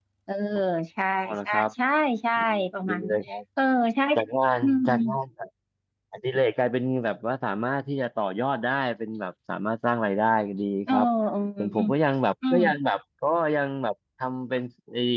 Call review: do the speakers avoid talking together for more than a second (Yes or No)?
Yes